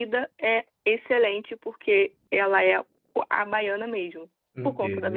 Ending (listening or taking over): taking over